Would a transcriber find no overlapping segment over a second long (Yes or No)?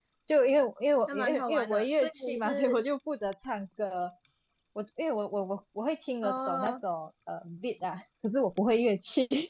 No